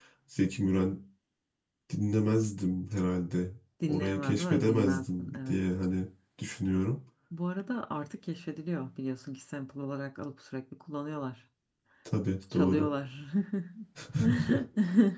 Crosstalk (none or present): present